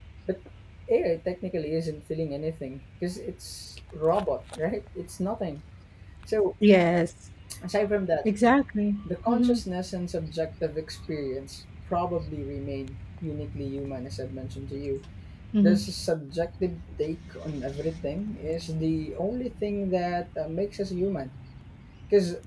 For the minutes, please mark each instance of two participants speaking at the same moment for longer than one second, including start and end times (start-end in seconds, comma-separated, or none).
none